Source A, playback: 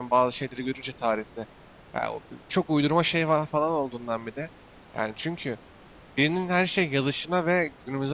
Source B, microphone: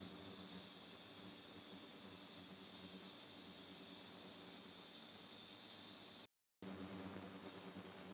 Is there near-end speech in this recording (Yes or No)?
No